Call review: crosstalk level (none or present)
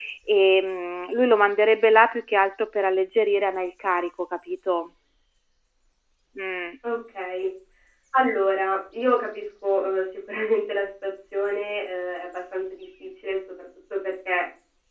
none